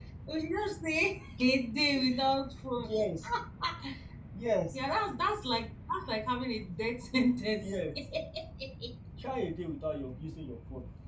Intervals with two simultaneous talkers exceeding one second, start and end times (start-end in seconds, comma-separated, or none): none